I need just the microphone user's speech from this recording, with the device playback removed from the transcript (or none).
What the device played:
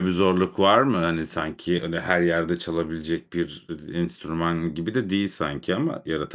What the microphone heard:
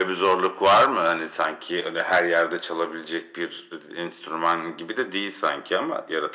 none